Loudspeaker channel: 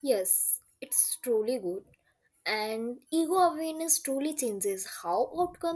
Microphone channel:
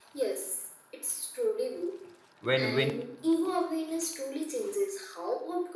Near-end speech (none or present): present